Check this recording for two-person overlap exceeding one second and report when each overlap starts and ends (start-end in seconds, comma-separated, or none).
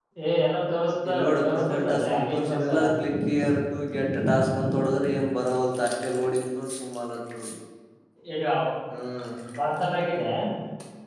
1.1-2.8